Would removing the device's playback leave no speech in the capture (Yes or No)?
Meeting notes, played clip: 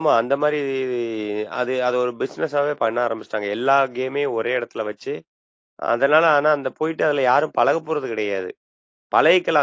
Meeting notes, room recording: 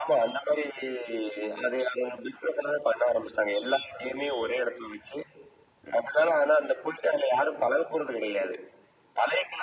Yes